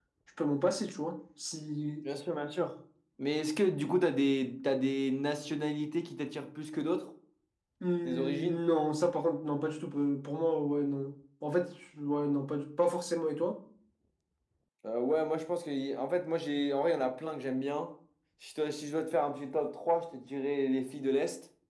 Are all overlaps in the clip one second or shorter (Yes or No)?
Yes